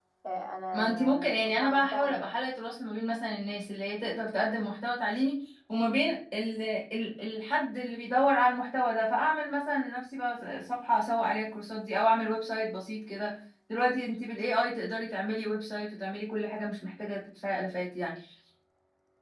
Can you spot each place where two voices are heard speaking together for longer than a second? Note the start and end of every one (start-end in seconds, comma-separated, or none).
0.7-2.1